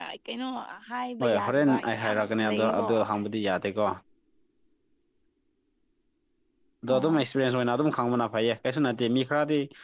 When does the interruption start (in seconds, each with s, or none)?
1.2 s